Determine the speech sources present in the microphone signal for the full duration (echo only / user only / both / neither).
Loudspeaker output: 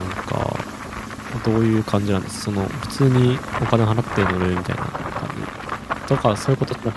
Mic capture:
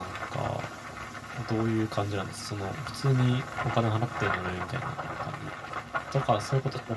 echo only